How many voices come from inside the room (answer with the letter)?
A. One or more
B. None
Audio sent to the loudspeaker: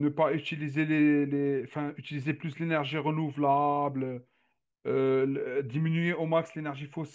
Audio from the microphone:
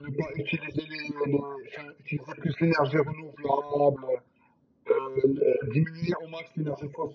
B